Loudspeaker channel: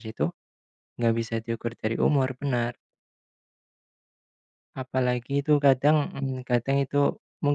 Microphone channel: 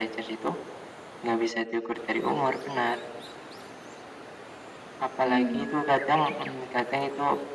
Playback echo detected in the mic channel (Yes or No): Yes